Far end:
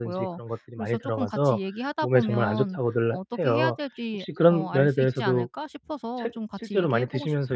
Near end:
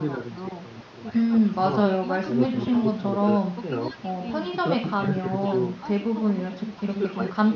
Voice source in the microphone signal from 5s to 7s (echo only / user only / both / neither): both